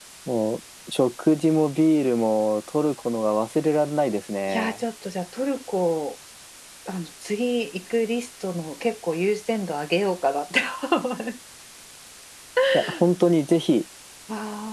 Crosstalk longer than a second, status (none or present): none